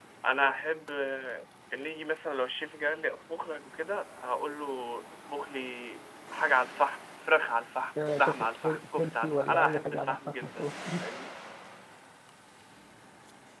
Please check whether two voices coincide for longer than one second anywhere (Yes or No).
Yes